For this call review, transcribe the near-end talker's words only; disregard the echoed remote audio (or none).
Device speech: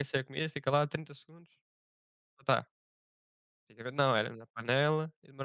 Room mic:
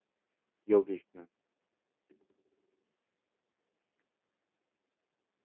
E ele diz-te, né?